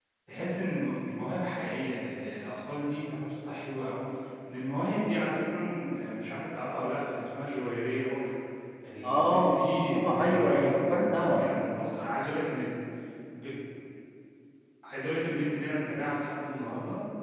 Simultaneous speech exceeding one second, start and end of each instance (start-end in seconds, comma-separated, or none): 9.9-11.4